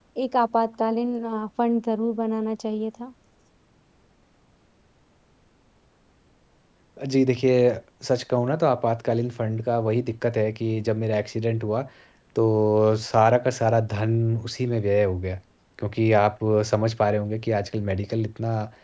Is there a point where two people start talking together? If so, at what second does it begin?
none

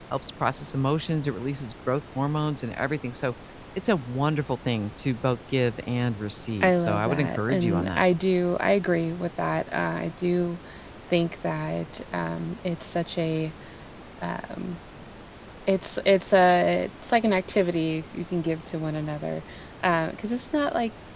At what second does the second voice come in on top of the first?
6.6 s

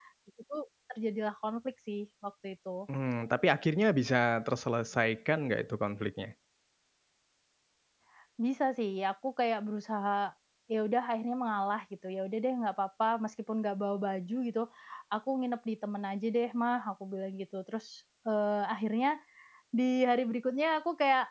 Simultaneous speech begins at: none

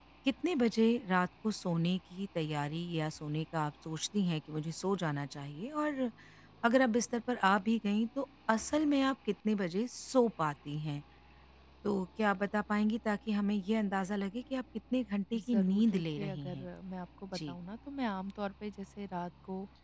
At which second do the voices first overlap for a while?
15.3 s

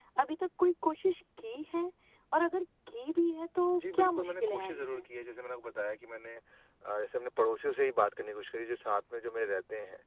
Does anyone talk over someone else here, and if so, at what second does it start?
3.8 s

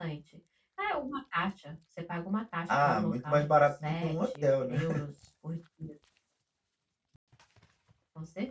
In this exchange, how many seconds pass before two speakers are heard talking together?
2.7 s

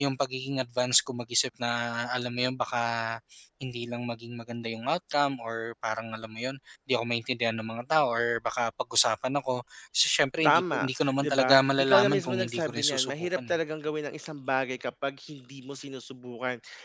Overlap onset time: 10.4 s

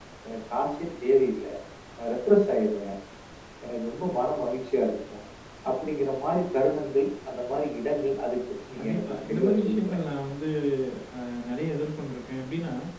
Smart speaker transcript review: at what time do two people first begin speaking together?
8.8 s

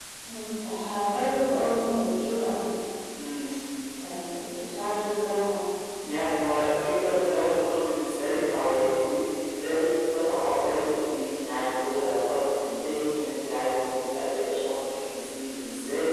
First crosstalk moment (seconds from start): none

